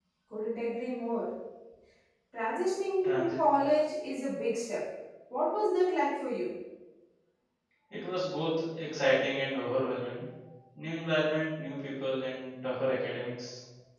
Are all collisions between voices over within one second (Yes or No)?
Yes